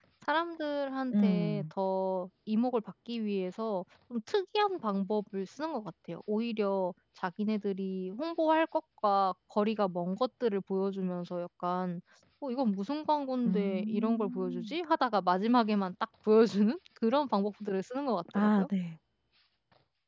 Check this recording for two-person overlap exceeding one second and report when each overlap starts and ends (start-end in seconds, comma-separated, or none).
13.5-14.7